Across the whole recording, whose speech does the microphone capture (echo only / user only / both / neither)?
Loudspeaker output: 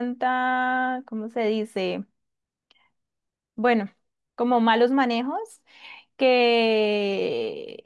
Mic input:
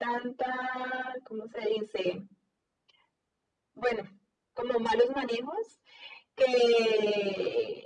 echo only